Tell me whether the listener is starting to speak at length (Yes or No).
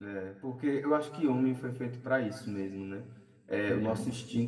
No